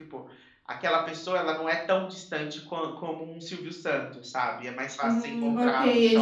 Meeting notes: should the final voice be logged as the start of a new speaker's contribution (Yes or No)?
Yes